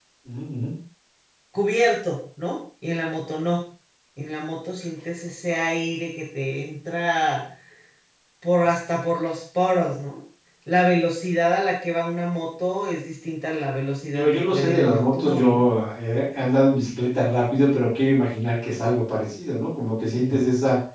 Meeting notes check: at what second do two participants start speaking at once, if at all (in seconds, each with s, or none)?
14.1 s